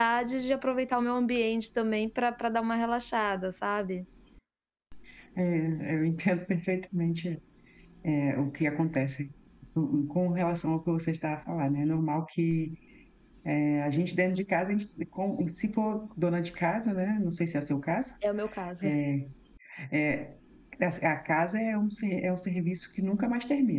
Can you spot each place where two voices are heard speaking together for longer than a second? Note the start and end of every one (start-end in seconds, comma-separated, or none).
none